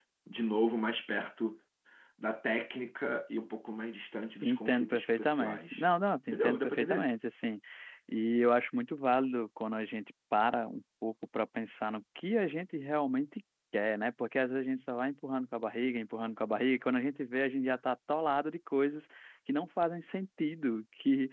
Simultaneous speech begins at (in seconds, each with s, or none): 4.4 s